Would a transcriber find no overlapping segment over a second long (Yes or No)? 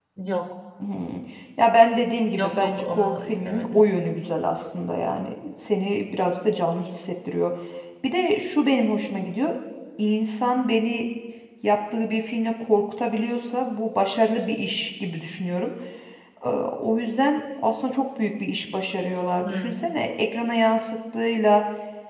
No